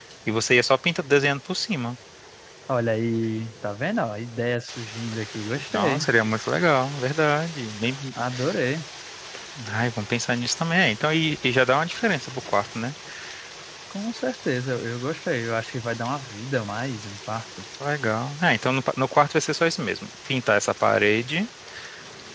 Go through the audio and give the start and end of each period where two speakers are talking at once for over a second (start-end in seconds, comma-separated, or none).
none